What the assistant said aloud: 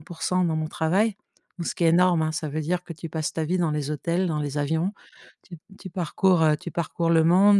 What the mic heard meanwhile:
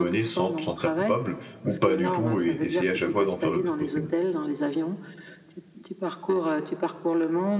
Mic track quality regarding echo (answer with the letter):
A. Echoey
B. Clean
A